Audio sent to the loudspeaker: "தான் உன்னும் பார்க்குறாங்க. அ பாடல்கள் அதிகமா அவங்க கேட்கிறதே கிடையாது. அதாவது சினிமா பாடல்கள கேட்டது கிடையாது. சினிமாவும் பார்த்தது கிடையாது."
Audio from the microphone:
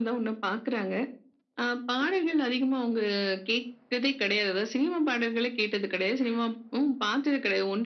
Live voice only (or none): none